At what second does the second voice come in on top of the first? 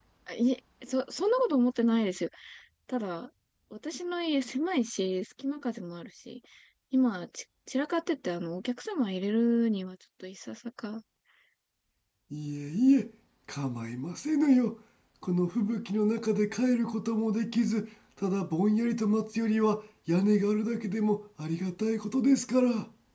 none

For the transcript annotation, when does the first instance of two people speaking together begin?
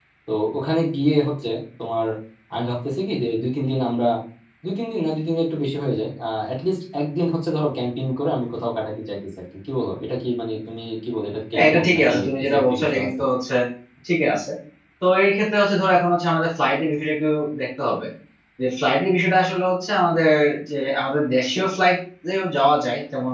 11.5 s

